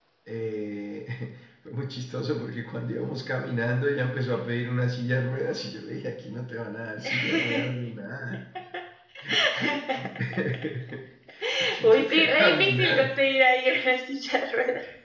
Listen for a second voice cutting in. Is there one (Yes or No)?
Yes